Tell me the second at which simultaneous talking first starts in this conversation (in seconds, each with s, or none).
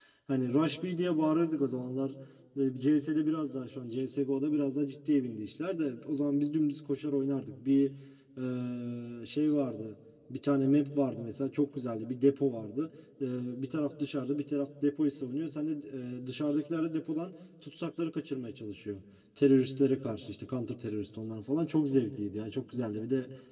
none